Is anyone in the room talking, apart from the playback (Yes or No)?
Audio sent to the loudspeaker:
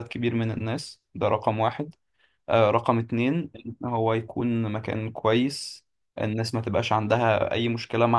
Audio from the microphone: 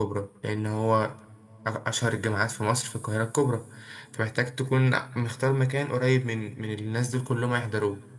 Yes